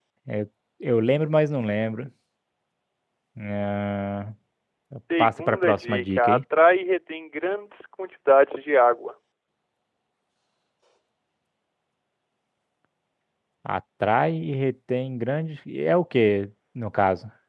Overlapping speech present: Yes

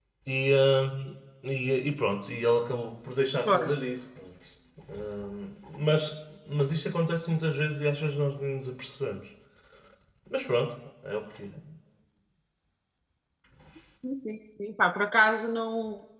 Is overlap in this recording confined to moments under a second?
Yes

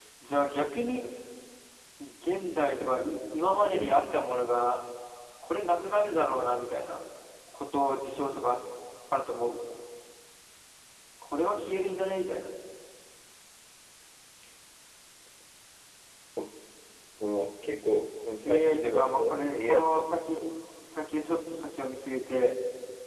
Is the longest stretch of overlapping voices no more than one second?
No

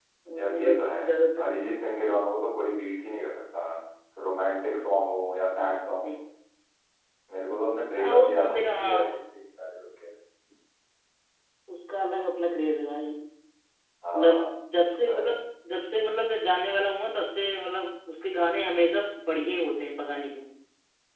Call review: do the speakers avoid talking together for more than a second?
No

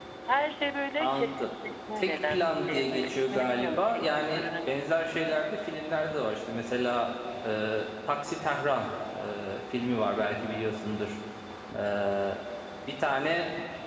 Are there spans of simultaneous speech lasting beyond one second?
Yes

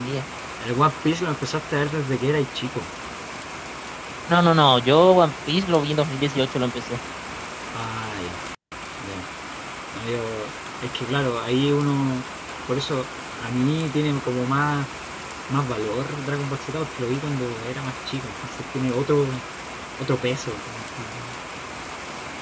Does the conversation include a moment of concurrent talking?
No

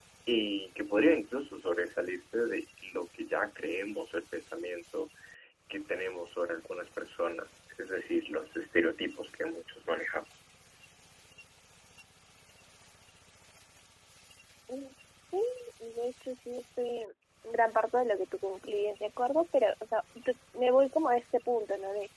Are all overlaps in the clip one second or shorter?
Yes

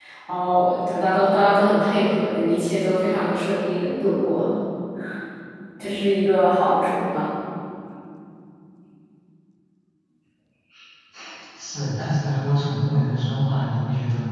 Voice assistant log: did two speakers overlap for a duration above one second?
No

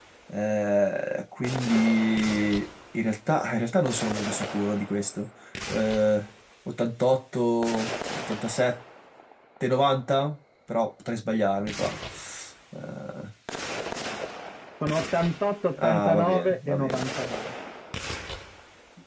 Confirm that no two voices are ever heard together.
No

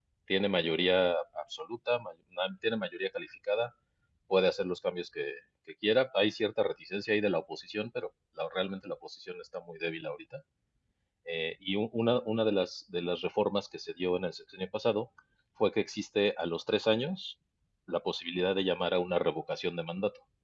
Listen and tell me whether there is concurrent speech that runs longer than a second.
No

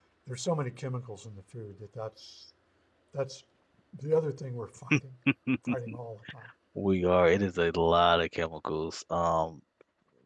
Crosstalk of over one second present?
No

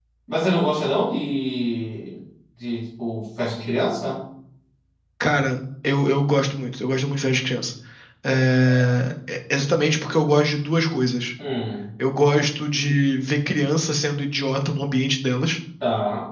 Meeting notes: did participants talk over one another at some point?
No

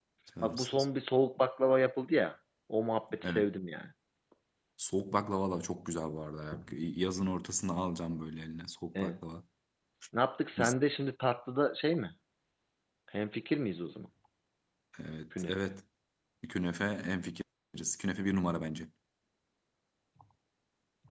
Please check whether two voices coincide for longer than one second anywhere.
No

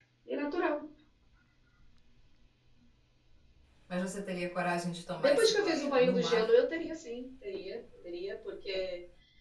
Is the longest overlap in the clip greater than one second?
Yes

